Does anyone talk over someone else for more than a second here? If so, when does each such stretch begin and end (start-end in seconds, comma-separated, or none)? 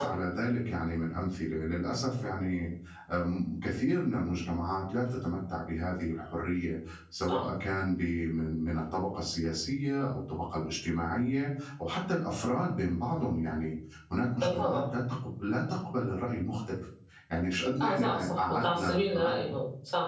17.8-19.4